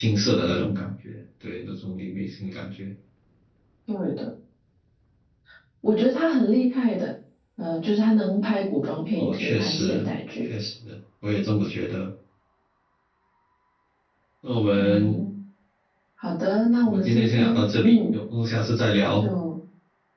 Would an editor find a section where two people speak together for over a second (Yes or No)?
Yes